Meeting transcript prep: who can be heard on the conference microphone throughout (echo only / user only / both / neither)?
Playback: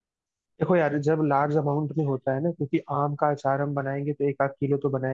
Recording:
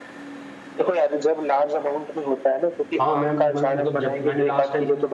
both